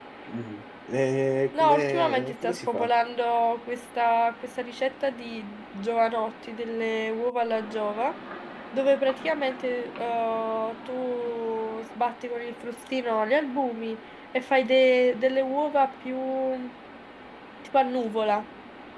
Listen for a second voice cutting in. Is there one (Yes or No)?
Yes